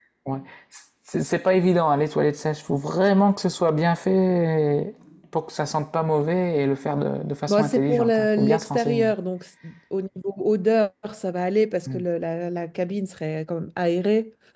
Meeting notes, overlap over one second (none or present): present